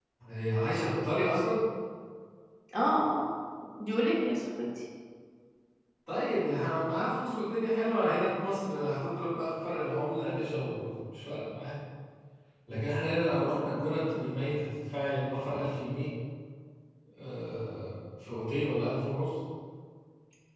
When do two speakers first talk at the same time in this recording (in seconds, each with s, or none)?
none